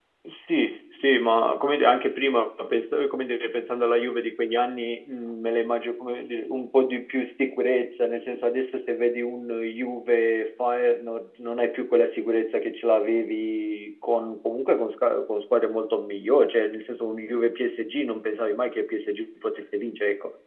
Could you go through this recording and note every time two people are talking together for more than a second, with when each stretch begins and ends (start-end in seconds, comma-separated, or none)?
none